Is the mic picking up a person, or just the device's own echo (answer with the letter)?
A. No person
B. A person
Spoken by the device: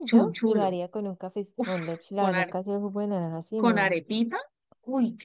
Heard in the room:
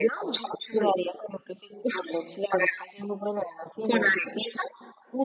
A